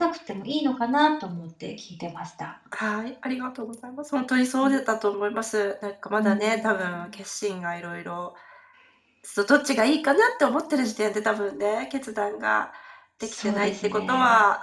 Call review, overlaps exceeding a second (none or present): present